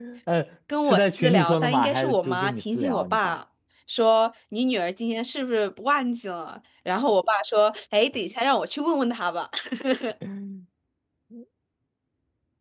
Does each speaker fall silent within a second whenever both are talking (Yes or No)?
No